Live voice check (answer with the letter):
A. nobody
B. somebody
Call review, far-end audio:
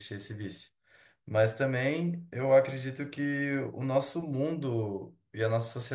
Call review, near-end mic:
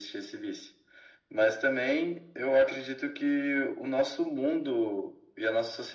A